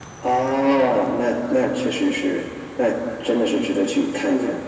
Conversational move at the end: taking over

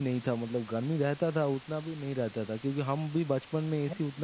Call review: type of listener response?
listening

